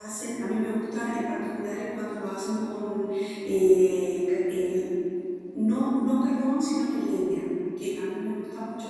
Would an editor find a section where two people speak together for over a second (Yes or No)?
No